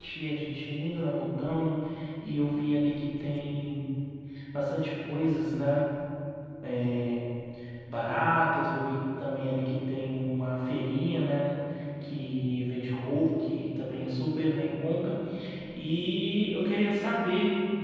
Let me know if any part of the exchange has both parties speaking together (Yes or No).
No